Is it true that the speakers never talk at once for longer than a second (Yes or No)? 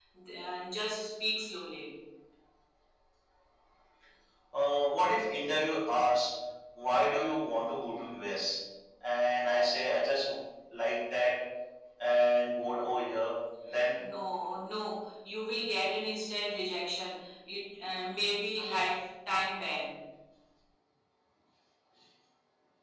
Yes